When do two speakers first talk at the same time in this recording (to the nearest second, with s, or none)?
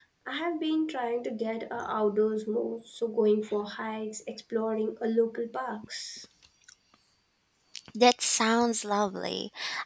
none